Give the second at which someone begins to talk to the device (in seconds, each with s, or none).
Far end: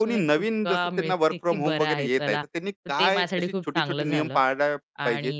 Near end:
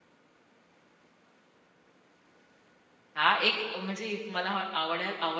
3.1 s